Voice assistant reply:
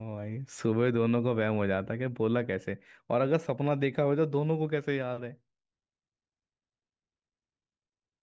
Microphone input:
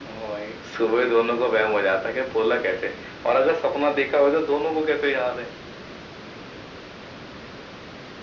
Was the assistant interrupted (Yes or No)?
No